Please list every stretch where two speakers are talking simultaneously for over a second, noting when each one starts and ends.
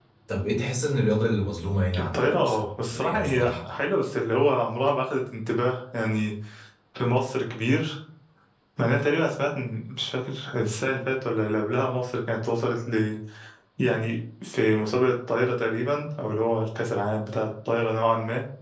2.0-3.8

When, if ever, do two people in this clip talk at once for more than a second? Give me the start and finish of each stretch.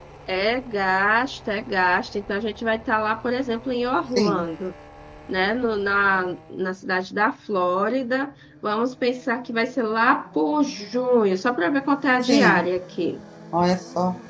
none

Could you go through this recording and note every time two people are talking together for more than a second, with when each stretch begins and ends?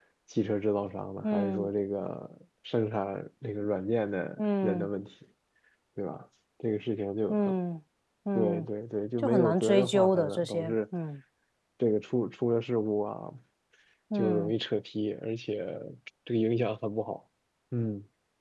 9.2-10.7

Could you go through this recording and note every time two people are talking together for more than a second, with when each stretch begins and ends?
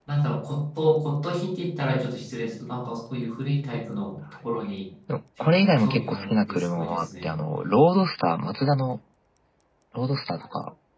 5.4-7.4

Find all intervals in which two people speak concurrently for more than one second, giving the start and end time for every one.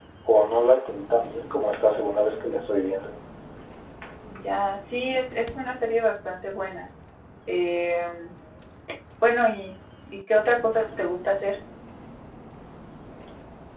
none

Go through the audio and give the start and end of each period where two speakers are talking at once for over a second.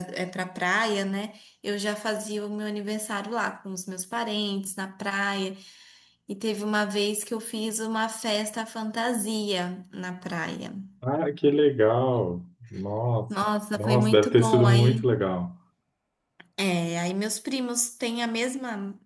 13.8-15.1

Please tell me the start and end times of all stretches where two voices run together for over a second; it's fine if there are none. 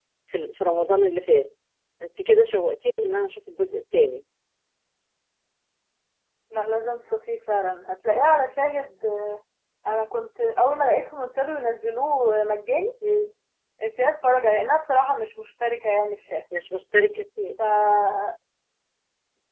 none

